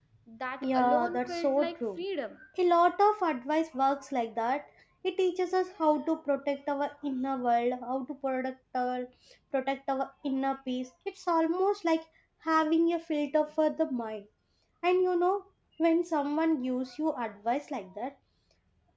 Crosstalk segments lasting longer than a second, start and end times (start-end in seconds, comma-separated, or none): 0.6-2.0